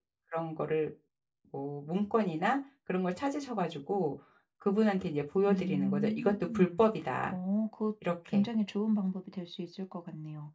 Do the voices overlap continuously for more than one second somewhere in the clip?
Yes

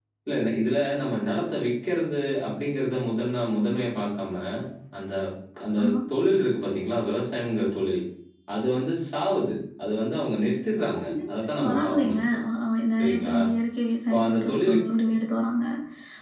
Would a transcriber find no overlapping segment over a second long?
No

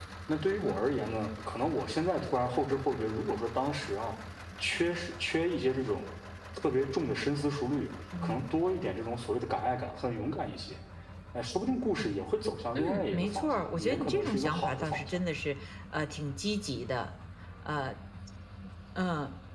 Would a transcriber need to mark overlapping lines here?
Yes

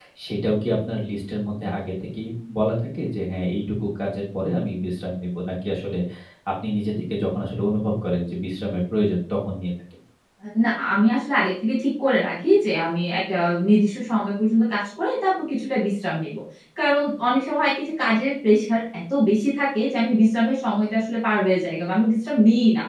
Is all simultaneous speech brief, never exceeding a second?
Yes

